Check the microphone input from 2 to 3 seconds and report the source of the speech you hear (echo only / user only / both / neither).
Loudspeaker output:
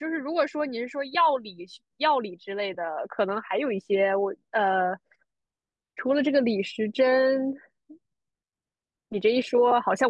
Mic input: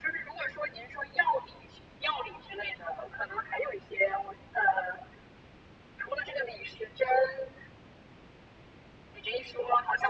echo only